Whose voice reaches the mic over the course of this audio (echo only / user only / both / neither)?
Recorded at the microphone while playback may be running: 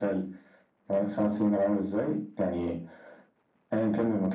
echo only